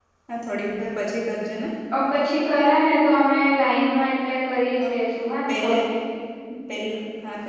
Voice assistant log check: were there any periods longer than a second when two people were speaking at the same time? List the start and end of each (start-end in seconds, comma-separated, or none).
none